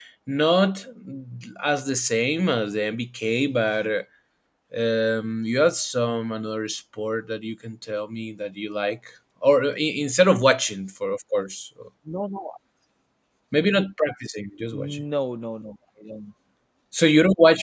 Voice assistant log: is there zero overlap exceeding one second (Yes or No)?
Yes